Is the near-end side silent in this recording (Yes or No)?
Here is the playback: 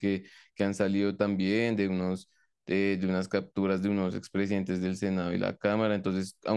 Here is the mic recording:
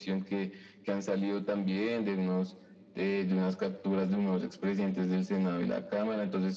Yes